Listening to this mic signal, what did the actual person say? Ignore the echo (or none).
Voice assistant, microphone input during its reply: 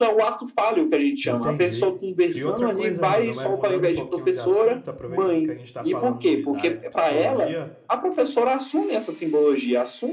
Entendi. E outra coisa, mano, é mudando um pouquinho de assunto, aproveitando que a gente está falando de, da área de psicologia,